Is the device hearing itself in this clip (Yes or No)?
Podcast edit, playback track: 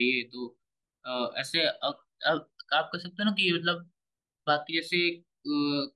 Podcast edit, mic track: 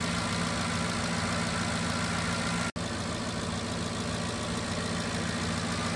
No